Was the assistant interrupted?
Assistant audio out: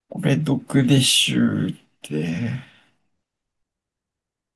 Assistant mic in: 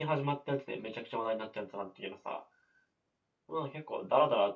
Yes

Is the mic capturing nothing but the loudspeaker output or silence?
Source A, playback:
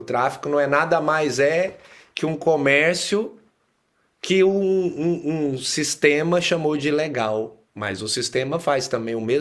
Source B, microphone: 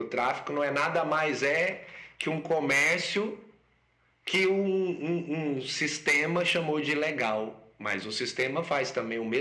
Yes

